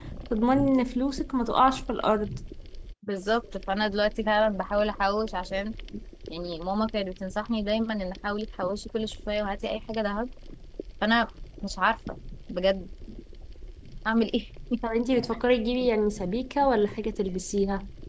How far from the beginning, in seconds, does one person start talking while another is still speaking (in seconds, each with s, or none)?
none